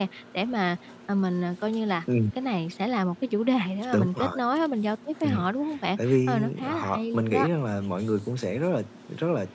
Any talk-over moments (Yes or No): Yes